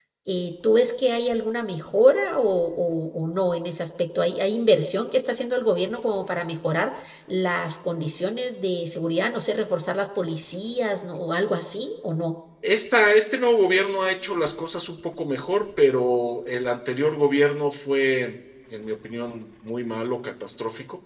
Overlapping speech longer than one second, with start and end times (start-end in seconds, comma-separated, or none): none